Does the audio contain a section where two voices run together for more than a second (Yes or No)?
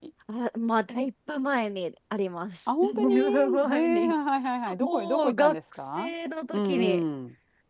Yes